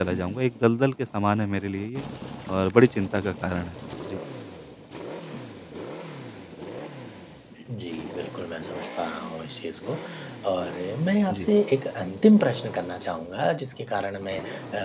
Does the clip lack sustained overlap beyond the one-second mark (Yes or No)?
Yes